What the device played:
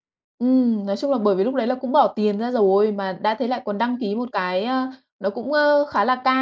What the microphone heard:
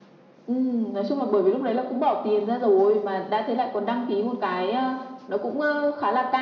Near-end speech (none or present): none